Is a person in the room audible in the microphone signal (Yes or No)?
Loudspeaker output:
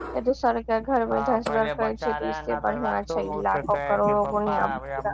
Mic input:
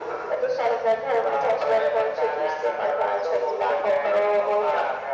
No